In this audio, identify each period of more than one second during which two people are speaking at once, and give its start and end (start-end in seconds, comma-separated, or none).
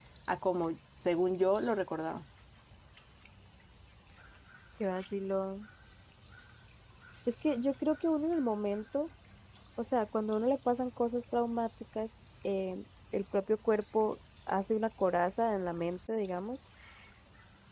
none